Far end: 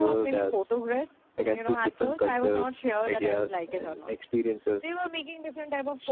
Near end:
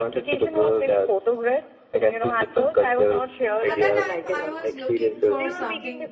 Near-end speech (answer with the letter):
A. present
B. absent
A